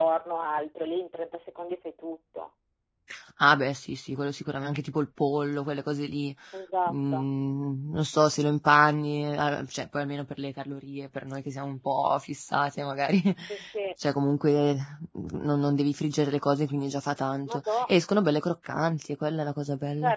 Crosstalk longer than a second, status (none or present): none